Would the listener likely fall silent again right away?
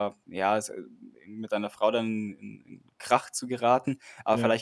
Yes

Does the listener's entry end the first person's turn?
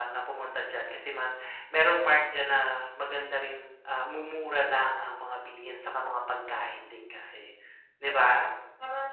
Yes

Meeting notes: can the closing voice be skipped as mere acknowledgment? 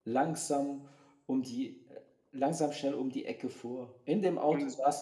Yes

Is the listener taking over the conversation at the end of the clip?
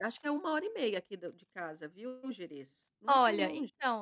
Yes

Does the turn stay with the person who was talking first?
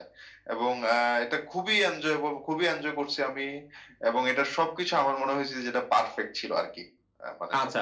No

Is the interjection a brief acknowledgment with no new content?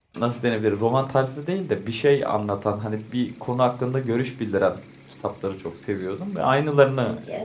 Yes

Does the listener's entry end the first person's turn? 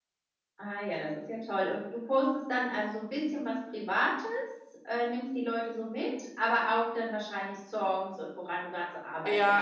Yes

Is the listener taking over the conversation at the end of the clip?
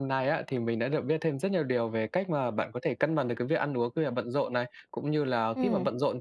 No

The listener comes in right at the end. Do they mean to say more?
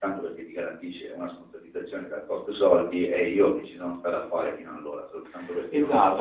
Yes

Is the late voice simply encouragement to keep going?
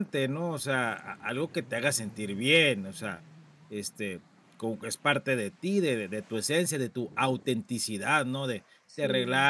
Yes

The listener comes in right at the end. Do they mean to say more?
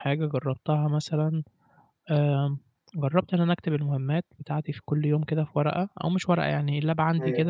No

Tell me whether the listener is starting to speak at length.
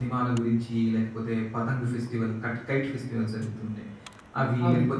No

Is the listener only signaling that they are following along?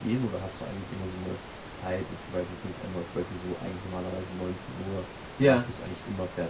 Yes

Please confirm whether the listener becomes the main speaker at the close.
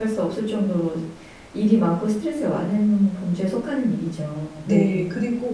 Yes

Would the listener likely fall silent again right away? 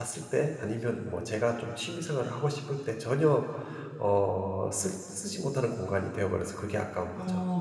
No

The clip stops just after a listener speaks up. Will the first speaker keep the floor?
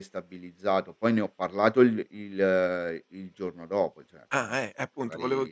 No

